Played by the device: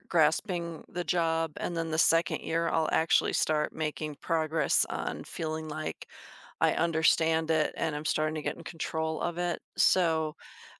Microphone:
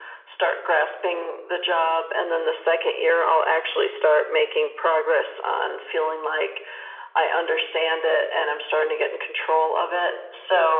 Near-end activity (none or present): none